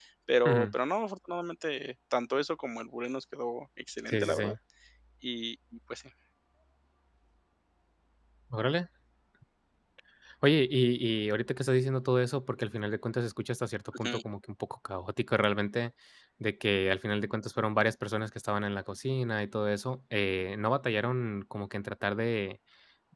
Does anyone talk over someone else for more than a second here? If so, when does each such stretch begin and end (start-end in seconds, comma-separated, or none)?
none